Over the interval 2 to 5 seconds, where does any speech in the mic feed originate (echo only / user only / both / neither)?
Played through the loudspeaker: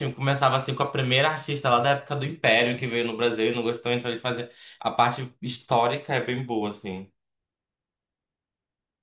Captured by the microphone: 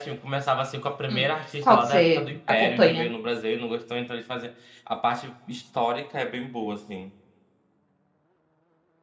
both